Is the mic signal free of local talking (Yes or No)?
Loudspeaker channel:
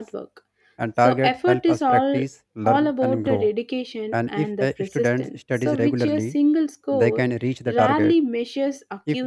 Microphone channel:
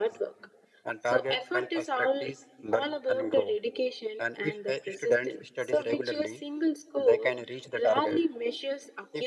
Yes